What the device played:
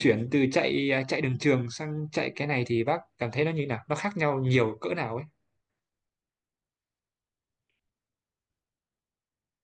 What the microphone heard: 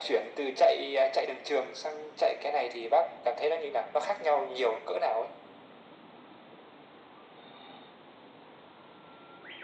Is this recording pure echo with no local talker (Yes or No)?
Yes